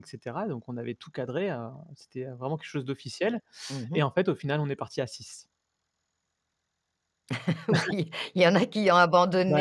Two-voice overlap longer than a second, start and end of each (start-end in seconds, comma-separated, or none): none